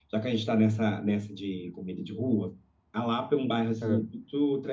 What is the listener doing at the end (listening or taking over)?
listening